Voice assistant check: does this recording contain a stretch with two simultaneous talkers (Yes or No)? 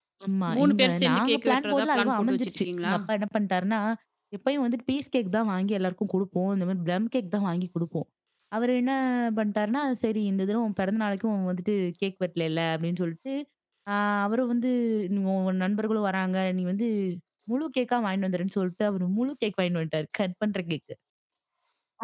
Yes